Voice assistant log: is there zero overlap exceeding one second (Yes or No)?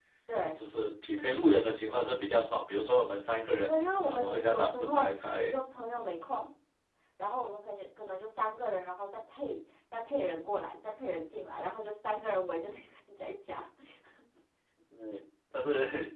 No